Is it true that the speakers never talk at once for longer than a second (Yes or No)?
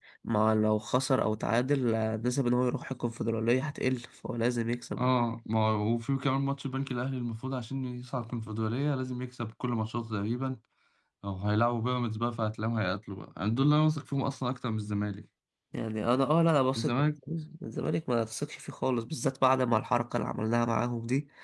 Yes